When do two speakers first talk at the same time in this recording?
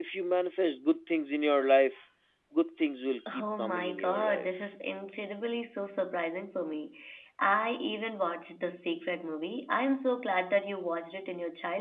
3.4 s

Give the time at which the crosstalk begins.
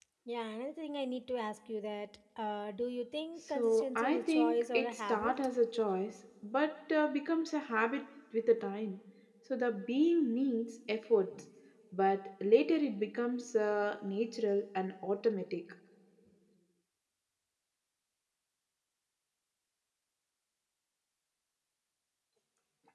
3.5 s

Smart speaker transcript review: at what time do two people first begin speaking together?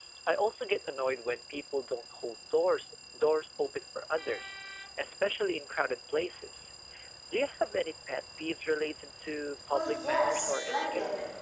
9.7 s

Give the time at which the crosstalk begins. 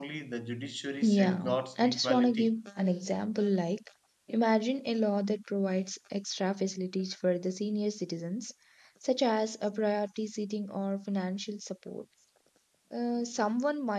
1.0 s

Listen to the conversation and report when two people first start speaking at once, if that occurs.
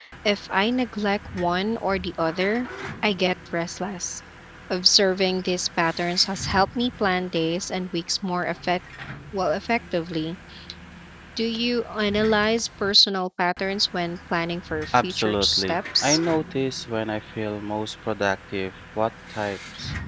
14.9 s

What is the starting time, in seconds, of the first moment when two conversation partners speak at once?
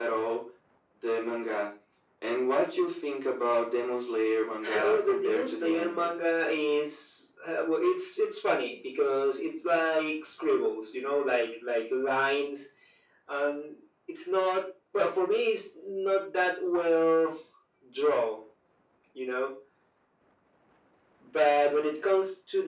4.6 s

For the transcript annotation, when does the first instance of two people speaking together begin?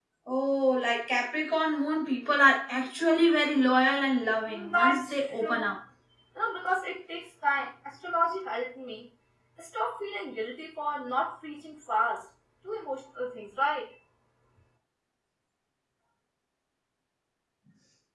4.5 s

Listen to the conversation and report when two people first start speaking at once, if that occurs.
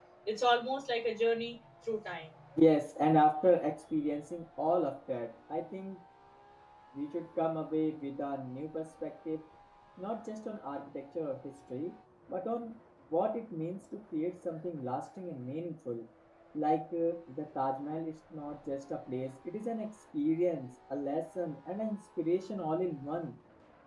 none

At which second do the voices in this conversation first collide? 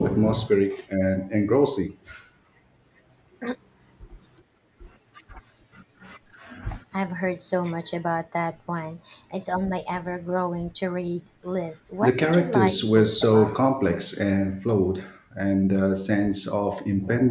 12.0 s

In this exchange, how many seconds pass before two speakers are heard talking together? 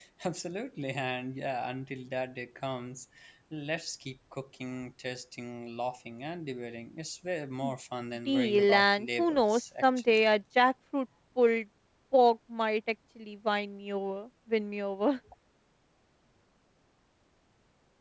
8.3 s

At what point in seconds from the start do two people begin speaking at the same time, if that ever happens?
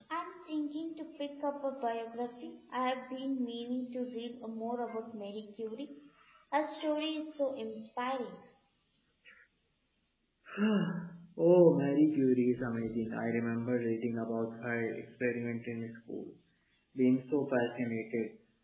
none

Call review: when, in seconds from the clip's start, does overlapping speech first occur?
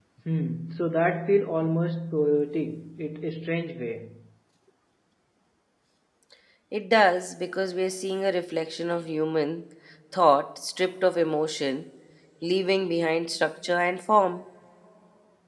none

